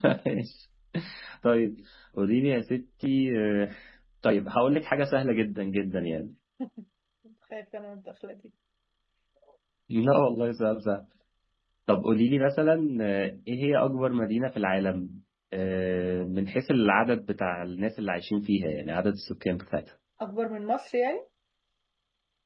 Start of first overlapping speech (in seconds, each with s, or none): none